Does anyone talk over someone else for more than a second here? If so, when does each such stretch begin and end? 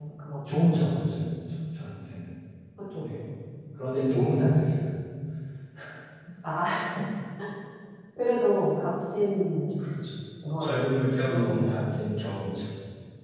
10.6-11.9

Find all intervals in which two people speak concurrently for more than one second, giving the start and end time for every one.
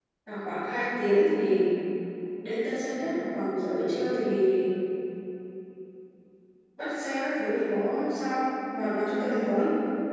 none

